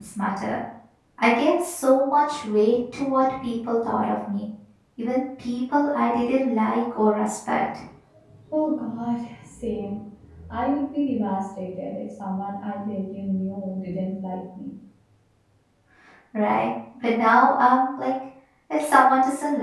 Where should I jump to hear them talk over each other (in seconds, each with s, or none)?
none